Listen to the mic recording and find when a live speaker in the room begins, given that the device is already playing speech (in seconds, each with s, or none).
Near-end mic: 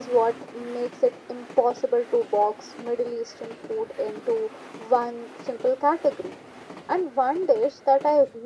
none